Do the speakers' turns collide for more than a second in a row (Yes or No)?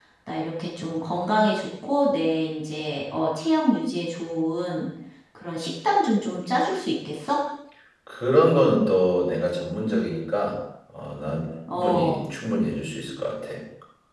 No